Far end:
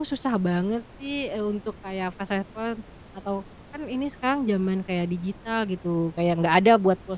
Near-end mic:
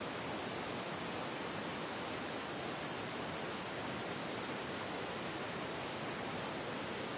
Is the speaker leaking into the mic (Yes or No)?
No